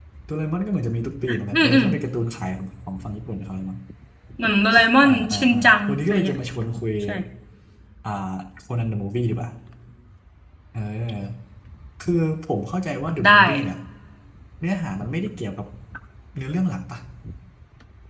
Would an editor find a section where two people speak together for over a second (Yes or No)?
Yes